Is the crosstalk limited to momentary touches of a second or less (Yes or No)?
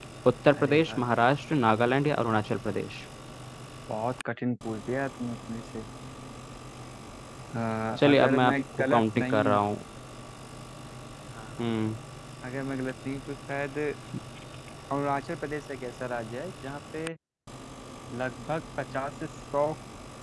No